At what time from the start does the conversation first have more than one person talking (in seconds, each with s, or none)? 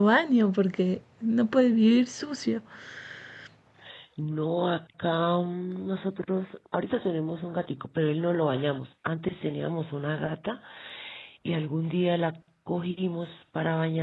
none